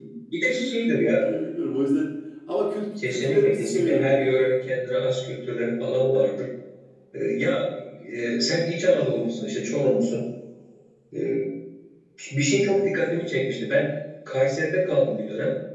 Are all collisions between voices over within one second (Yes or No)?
No